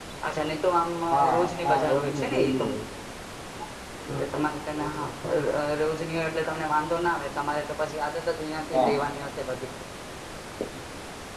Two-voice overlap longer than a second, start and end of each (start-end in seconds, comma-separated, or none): 1.3-2.7